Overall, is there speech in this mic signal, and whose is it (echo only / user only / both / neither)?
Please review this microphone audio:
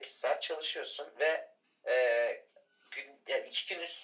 echo only